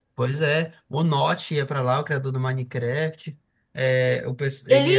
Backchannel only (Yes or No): Yes